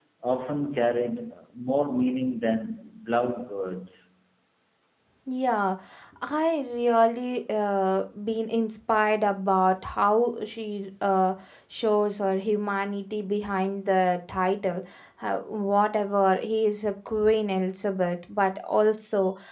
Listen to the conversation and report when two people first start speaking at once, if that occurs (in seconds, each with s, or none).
none